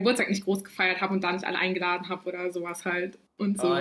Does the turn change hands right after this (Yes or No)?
Yes